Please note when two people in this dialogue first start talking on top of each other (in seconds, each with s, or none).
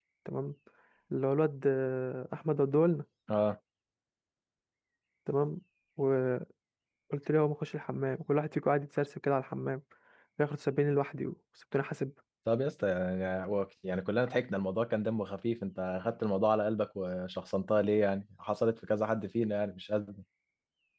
none